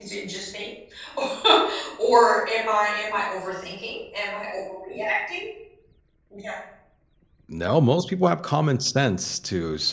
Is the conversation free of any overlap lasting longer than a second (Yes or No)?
Yes